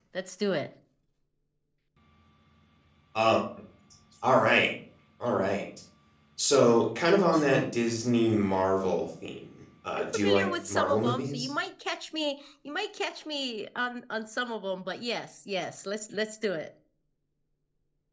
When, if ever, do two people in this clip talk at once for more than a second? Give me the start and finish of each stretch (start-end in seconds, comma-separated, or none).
9.9-11.5